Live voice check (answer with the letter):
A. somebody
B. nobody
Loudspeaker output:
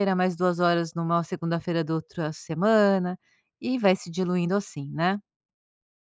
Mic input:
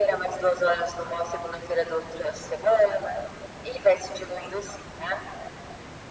B